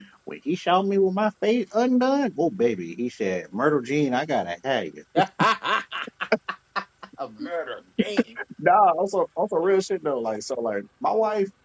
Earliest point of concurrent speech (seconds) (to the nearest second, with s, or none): none